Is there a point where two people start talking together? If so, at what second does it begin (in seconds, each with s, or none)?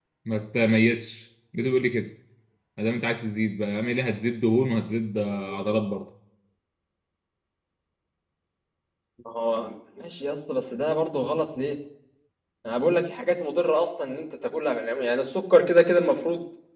none